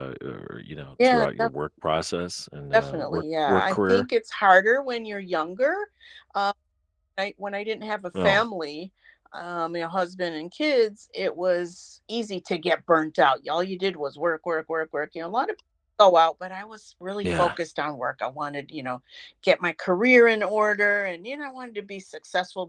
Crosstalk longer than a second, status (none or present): present